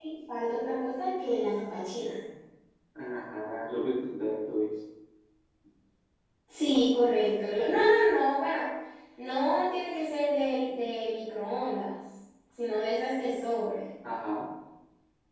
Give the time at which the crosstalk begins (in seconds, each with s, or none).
none